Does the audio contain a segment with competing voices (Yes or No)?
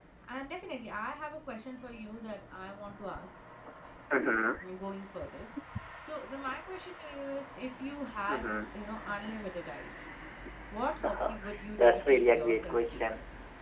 Yes